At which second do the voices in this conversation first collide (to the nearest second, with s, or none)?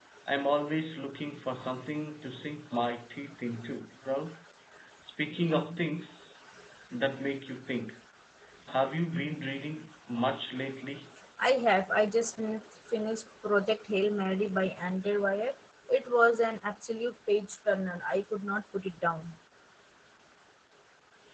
none